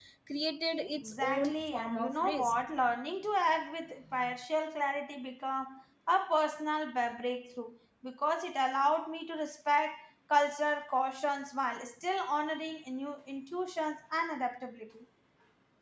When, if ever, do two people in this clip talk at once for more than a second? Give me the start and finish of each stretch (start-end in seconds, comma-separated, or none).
1.0-2.6